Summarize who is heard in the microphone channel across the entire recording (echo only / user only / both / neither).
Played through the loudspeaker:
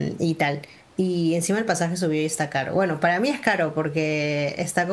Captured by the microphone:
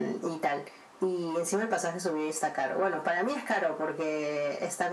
echo only